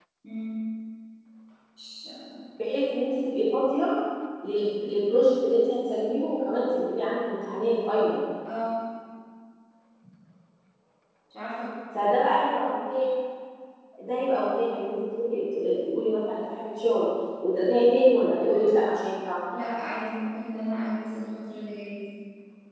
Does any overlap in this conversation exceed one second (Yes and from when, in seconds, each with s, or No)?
No